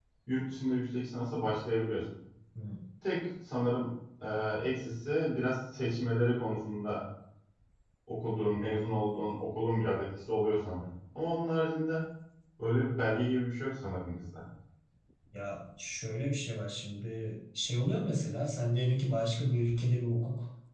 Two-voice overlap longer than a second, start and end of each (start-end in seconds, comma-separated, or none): none